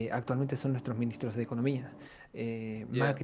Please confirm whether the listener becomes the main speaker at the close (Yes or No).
No